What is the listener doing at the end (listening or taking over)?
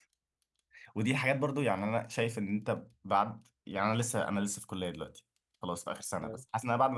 listening